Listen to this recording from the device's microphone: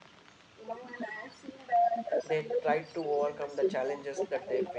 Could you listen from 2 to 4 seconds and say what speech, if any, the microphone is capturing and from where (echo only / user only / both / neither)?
both